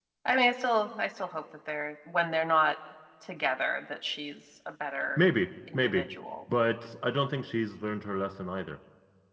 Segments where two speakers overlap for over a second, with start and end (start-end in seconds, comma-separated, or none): none